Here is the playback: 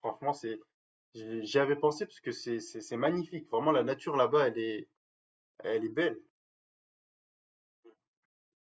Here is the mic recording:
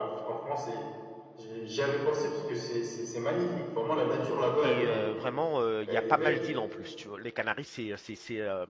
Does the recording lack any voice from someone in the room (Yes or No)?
No